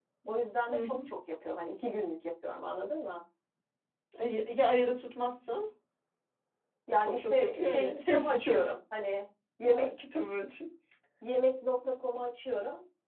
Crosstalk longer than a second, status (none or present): present